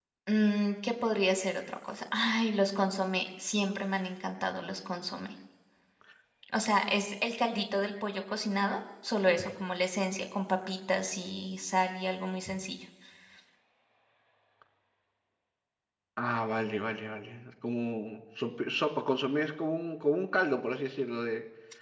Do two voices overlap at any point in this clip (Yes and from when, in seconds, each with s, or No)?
No